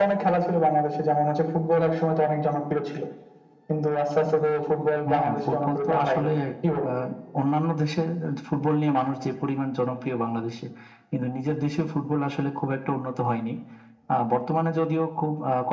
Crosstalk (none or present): present